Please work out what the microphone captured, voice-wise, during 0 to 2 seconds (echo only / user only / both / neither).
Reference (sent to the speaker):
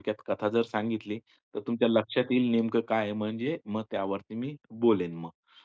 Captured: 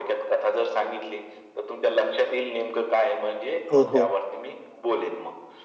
echo only